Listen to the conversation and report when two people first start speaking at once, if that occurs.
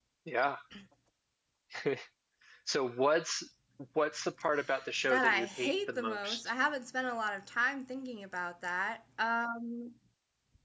5.0 s

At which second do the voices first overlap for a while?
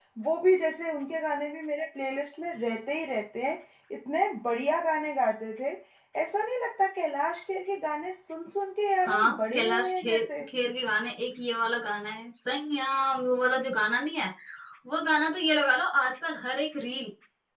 9.0 s

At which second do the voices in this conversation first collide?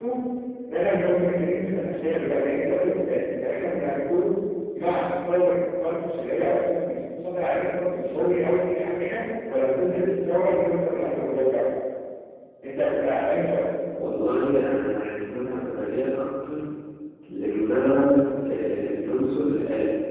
none

